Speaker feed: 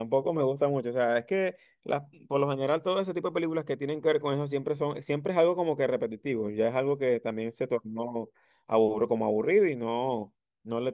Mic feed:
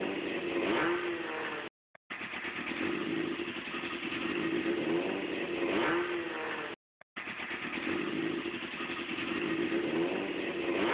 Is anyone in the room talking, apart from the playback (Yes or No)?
No